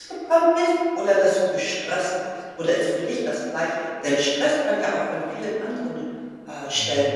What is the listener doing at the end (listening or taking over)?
taking over